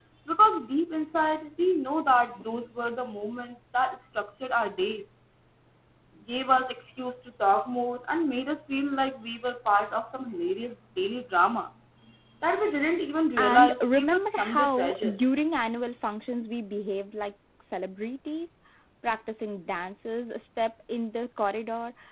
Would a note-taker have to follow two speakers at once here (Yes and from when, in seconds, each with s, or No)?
Yes, from 13.4 s